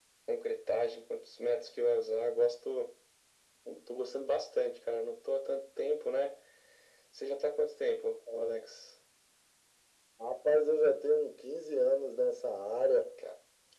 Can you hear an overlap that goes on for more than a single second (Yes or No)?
No